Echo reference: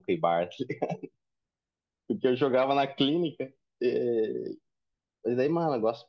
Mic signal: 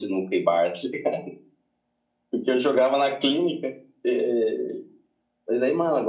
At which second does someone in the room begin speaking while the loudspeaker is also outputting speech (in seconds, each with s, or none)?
none